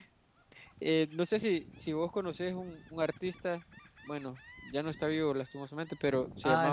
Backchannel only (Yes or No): No